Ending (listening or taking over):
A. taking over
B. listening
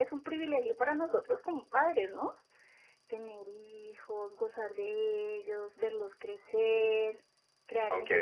A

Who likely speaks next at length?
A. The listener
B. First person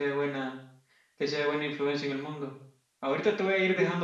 B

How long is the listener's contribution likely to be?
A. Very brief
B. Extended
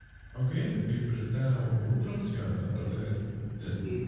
B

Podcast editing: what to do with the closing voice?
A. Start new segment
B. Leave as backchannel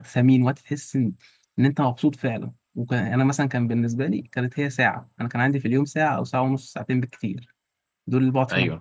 B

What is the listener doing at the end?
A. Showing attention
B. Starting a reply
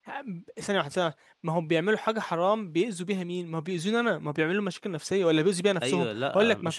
B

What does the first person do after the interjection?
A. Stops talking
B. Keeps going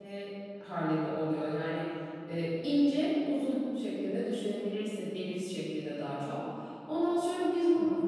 B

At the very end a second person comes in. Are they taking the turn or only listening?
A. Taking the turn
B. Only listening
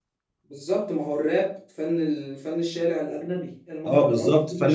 A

